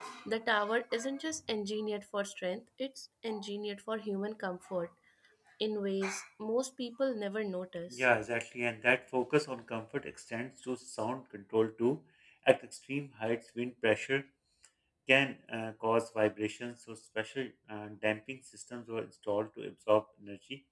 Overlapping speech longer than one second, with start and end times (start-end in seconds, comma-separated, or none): none